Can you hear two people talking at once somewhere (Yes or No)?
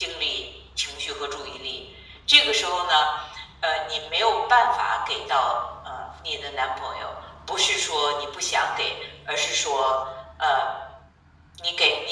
No